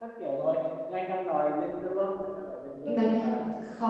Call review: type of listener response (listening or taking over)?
taking over